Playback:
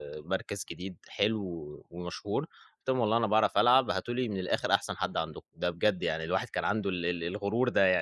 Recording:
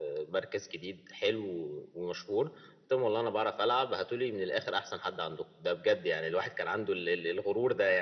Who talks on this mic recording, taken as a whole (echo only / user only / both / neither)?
echo only